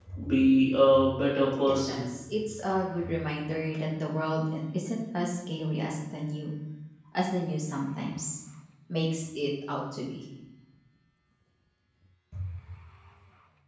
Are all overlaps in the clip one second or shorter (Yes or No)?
Yes